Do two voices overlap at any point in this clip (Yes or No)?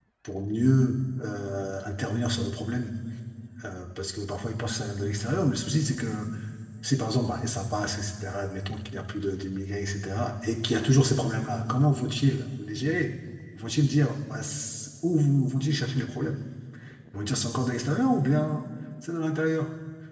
No